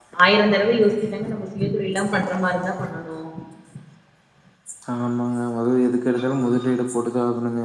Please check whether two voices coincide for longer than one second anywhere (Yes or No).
No